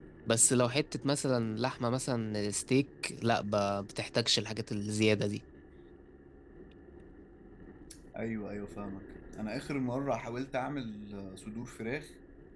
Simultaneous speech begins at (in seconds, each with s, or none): none